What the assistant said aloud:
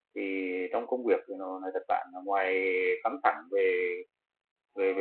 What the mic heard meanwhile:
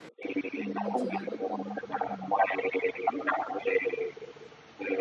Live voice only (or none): Ừ, mình chỉ là văn phòng văn phòng